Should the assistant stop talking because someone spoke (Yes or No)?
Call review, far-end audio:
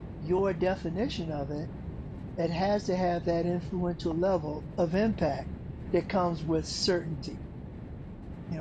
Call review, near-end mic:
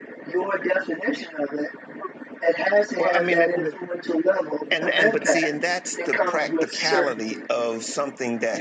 Yes